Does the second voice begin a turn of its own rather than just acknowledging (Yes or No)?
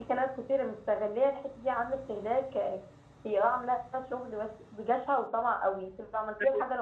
No